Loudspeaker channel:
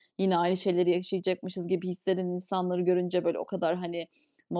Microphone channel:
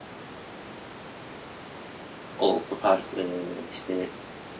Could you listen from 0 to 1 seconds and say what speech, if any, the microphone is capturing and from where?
neither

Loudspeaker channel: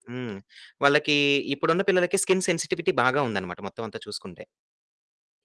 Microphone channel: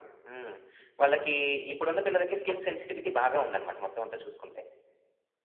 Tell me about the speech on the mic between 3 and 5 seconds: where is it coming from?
echo only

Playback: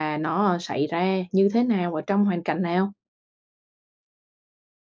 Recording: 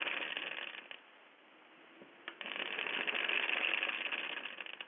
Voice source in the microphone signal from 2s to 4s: neither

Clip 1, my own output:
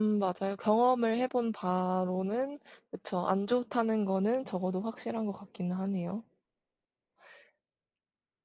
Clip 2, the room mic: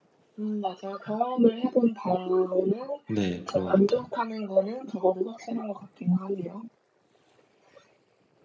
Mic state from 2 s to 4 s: both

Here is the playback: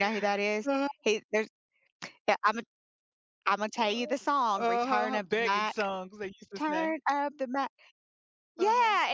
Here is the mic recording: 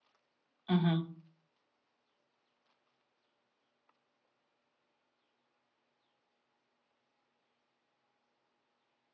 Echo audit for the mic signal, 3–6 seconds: neither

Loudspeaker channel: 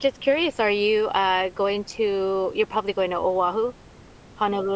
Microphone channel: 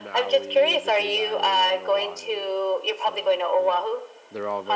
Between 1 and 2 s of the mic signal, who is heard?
both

